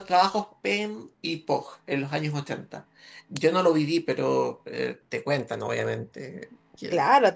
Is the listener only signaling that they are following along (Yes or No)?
No